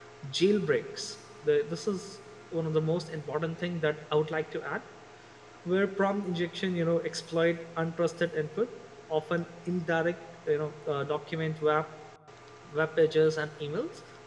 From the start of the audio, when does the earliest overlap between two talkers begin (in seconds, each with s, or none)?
none